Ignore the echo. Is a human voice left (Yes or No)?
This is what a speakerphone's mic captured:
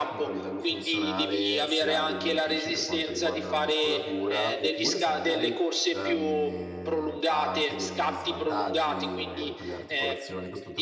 Yes